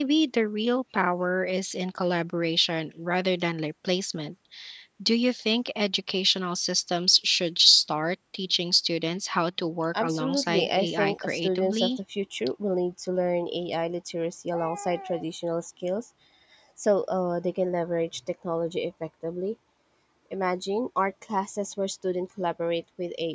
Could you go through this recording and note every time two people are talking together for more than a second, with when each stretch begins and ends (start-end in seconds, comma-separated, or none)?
10.0-11.9